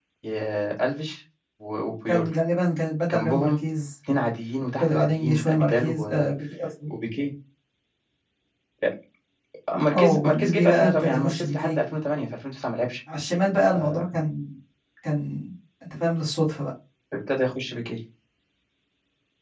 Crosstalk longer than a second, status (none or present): present